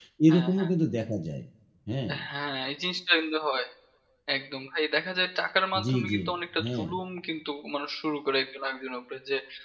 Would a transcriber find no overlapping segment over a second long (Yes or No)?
Yes